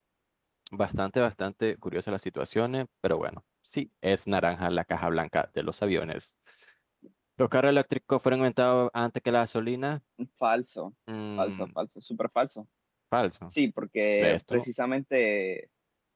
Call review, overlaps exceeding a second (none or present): none